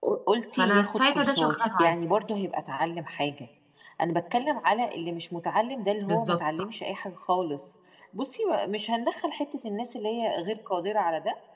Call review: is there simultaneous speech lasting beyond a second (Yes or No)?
Yes